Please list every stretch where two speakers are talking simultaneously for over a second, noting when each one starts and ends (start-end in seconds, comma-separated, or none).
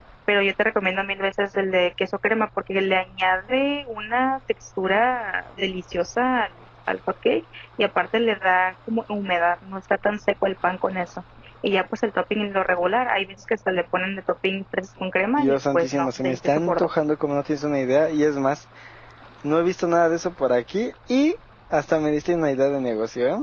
15.4-16.9